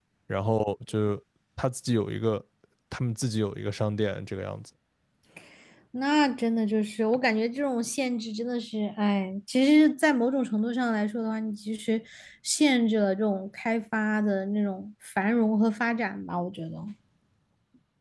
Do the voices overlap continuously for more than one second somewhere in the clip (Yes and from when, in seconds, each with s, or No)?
No